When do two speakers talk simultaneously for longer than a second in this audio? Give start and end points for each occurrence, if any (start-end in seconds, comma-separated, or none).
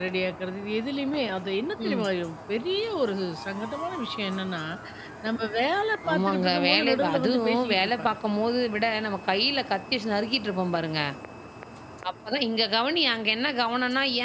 6.1-8.1